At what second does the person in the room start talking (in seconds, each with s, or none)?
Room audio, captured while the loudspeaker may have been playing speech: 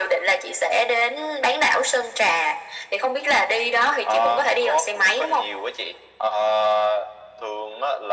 none